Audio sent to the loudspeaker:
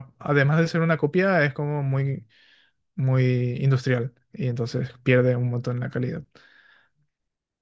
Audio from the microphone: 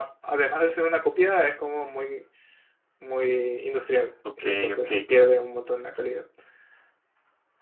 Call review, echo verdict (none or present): present